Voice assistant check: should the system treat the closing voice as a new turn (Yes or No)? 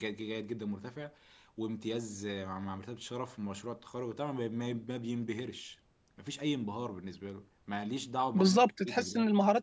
Yes